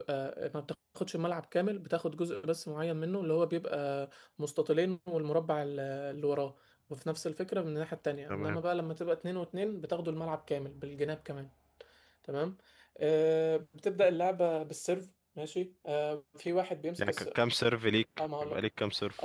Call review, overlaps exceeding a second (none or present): none